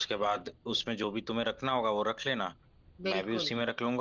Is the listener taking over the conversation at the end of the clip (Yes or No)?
No